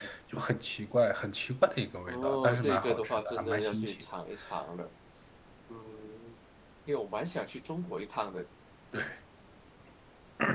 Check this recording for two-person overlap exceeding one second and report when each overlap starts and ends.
2.1-4.0

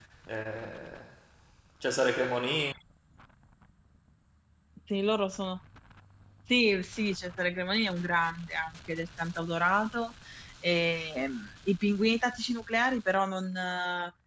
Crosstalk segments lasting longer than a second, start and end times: none

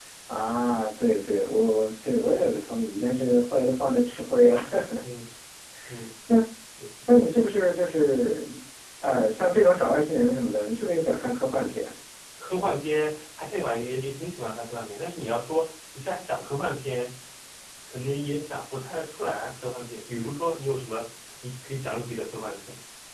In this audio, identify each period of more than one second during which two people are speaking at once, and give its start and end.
none

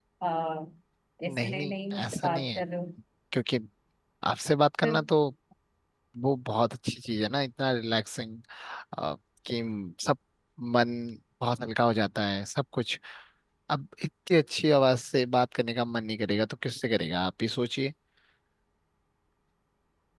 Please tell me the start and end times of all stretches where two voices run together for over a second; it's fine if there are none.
1.3-2.6

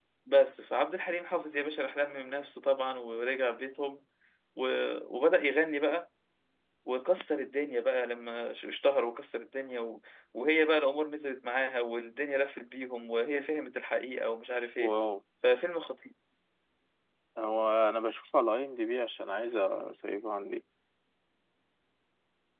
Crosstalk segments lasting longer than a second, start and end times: none

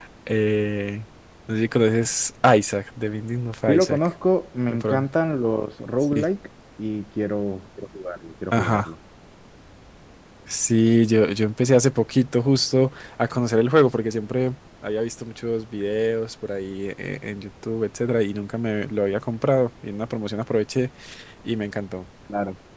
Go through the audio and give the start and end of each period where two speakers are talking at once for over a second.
none

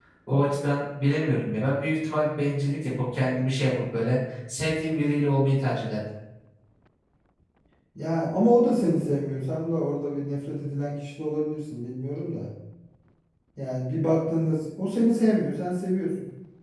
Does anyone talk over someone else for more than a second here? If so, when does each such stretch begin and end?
none

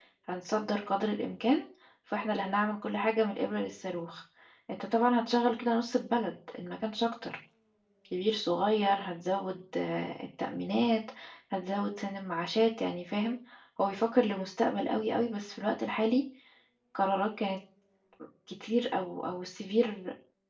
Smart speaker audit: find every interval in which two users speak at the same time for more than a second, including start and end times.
none

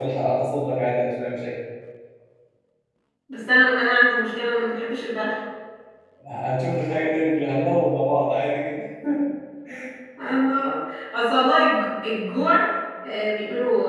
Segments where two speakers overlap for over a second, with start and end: none

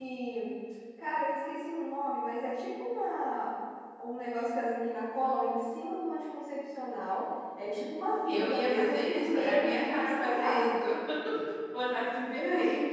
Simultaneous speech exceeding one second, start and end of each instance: 8.3-10.7

